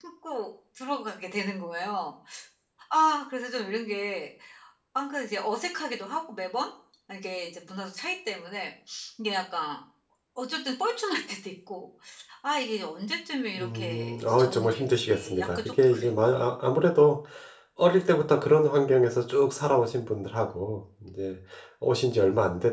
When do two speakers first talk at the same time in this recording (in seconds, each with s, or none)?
13.6 s